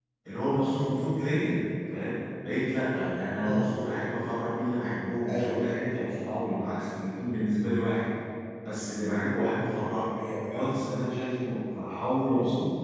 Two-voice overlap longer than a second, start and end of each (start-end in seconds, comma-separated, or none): none